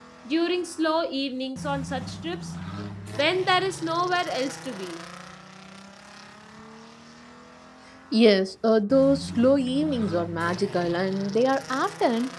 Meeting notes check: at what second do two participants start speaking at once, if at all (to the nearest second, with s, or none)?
none